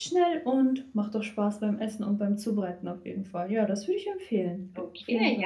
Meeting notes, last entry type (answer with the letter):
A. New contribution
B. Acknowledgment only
A